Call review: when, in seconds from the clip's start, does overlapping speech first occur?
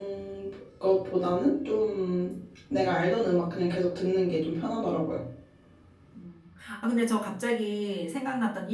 none

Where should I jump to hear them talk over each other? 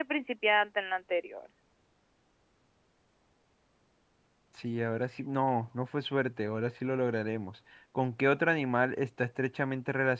none

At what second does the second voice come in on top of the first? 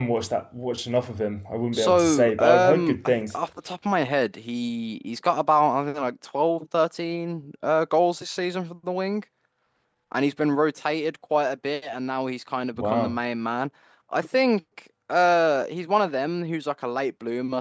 1.7 s

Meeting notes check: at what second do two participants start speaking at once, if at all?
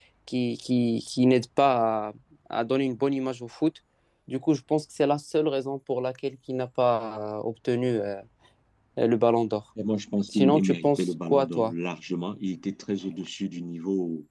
10.3 s

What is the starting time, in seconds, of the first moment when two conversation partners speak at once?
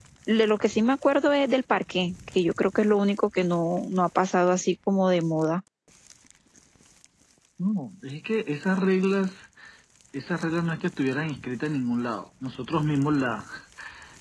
none

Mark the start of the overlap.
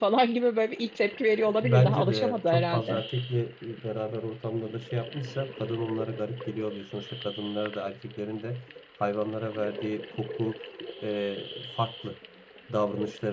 1.6 s

